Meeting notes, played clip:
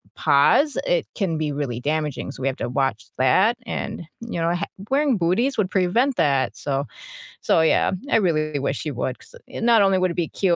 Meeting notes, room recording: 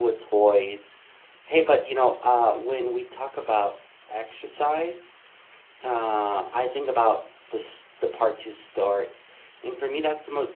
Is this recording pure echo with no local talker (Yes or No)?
No